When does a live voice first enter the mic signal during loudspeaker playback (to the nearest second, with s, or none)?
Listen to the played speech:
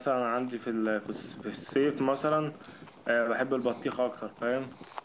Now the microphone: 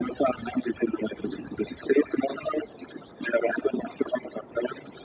none